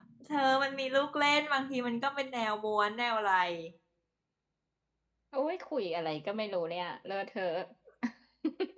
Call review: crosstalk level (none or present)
none